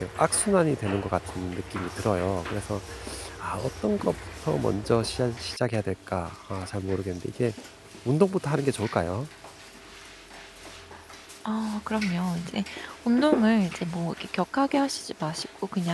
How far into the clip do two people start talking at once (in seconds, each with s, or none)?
none